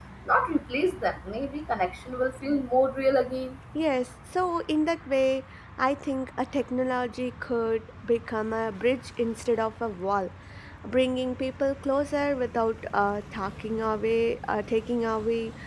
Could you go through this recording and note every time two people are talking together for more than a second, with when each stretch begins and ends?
none

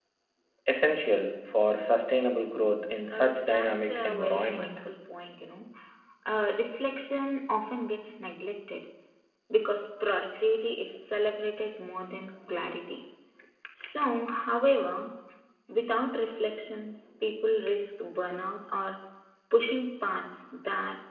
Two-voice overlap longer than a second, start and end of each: 3.1-4.7

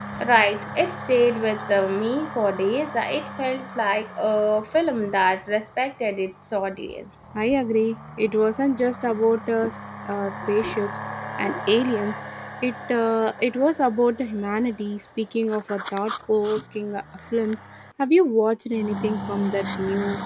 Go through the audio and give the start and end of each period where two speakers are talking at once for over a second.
none

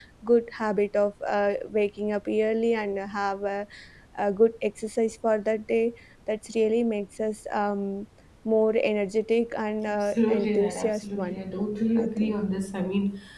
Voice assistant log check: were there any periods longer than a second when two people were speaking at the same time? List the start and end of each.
10.2-11.4

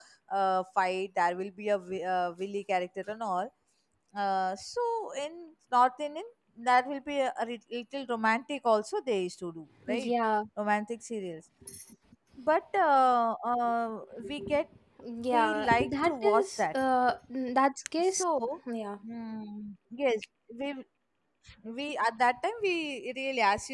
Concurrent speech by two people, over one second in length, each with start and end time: 15.3-16.7

